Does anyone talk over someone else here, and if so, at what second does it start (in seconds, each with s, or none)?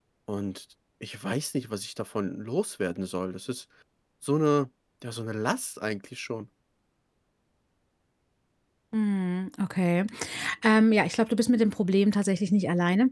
none